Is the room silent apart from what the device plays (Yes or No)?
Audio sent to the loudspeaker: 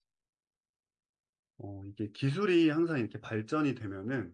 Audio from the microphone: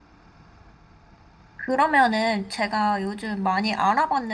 No